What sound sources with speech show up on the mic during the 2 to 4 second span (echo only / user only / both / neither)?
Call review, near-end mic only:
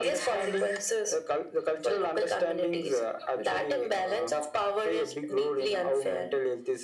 echo only